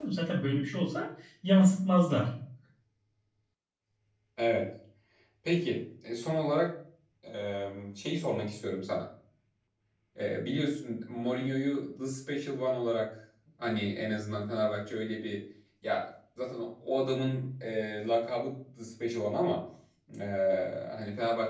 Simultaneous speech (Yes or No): No